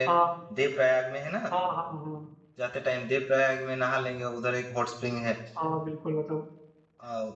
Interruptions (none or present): none